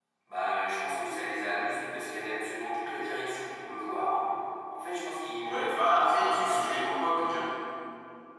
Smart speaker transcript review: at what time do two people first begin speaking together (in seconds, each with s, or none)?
5.4 s